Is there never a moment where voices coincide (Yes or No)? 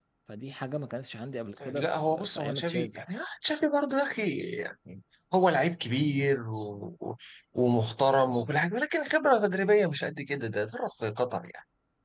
No